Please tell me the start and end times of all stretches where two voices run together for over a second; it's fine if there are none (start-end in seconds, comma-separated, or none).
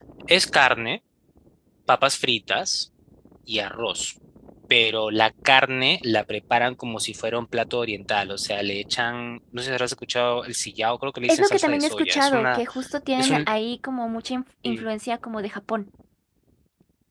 11.3-12.6